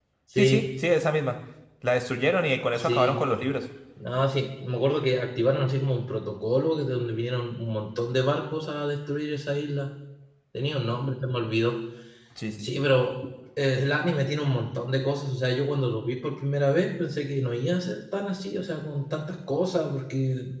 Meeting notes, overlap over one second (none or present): none